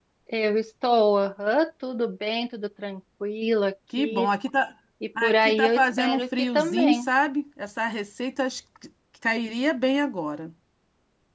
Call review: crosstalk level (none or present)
present